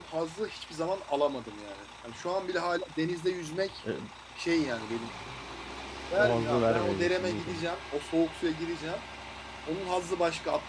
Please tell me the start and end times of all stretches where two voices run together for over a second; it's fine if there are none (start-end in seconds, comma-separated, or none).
6.2-7.6